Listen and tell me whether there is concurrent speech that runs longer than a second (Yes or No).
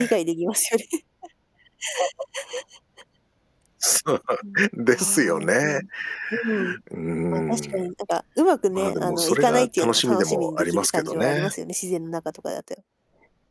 Yes